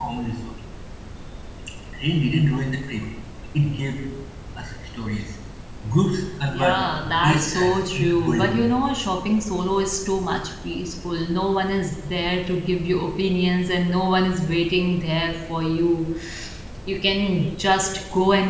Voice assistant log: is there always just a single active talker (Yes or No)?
No